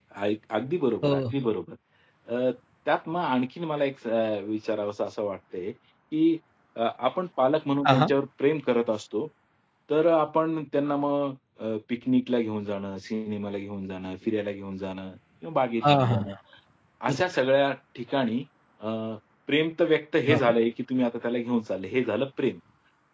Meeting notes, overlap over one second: none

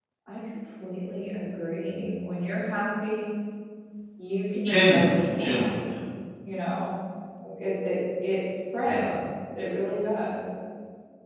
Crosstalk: present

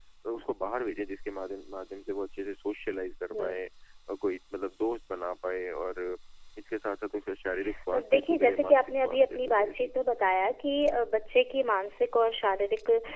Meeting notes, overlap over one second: present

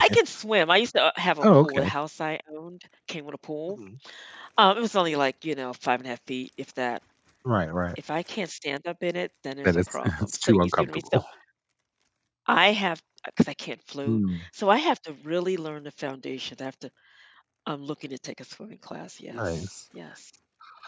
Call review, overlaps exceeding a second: present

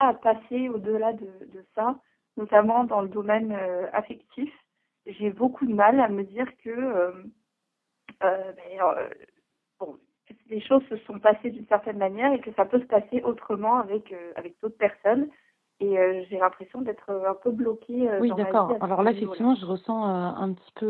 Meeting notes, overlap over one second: present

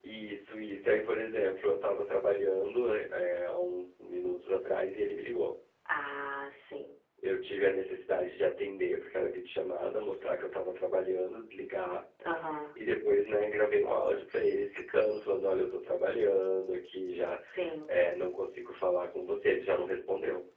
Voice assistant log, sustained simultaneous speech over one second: none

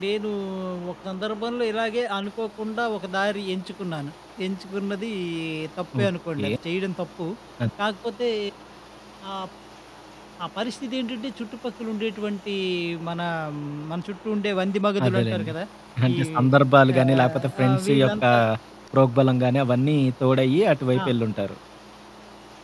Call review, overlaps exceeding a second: present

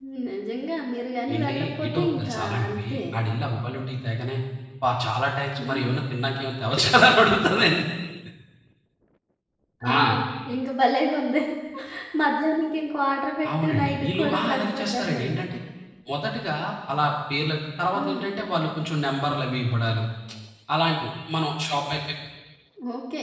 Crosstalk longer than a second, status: present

